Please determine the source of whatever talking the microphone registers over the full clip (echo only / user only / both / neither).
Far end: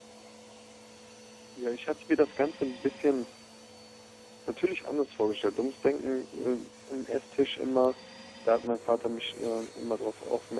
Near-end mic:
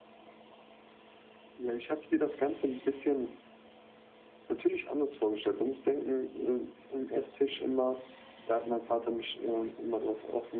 echo only